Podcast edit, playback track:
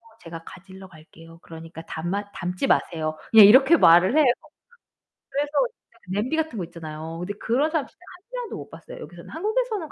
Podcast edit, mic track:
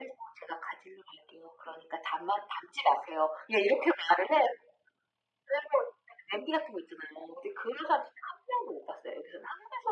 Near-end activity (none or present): none